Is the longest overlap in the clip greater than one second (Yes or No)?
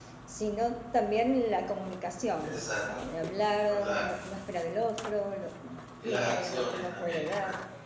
Yes